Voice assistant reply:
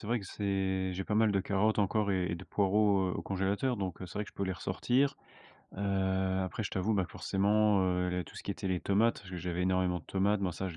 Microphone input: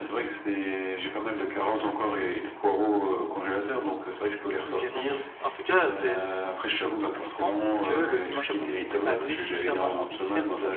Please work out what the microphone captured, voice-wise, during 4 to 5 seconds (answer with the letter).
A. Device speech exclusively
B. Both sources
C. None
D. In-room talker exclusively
B